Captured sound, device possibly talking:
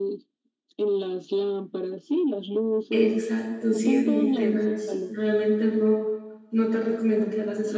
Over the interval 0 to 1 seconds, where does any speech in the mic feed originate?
echo only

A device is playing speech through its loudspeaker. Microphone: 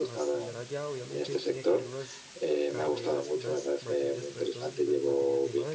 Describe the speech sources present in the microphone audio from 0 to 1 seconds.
both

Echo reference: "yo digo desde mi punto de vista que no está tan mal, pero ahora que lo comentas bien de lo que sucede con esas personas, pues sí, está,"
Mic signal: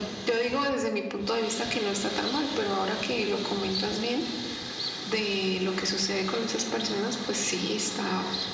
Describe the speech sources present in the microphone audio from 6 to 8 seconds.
echo only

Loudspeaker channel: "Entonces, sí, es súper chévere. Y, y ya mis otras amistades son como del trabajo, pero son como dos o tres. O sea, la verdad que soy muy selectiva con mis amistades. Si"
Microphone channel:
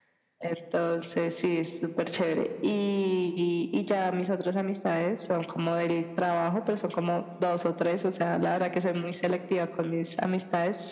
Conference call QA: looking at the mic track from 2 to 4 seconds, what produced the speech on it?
echo only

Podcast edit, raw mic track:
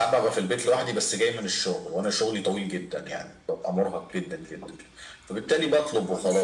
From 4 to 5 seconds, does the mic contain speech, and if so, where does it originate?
echo only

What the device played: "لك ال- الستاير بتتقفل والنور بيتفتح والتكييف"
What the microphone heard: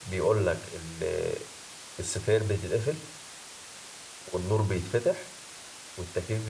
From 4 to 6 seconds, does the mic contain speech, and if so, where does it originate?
echo only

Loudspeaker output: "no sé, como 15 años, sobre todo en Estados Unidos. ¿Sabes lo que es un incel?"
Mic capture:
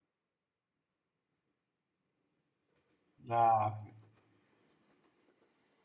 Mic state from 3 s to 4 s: user only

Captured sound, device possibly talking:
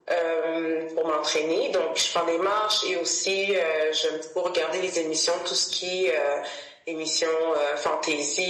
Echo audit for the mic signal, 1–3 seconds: echo only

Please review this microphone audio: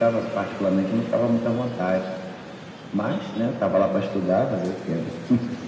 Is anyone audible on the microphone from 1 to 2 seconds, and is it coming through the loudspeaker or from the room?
echo only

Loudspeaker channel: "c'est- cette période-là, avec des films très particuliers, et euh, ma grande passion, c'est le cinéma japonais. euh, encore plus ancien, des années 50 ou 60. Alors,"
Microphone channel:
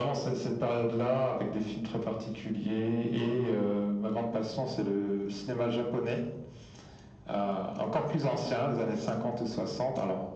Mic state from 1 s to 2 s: echo only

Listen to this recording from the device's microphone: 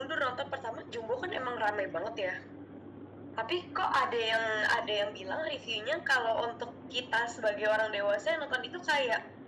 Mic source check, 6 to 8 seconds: echo only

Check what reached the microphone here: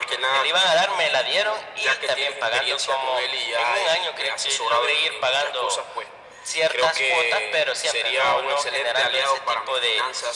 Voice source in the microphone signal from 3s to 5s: echo only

